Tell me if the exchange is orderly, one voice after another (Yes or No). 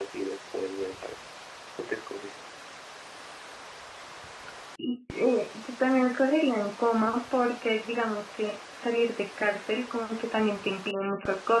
Yes